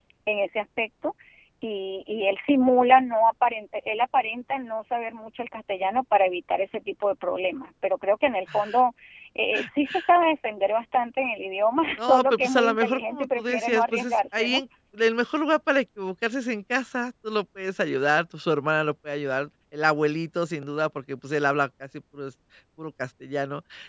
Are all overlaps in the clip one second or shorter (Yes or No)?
No